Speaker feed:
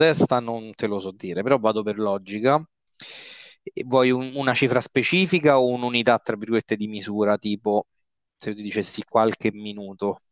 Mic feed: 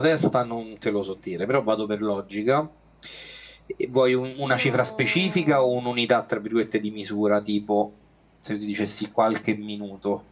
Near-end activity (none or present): present